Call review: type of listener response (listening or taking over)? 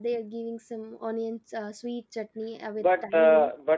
taking over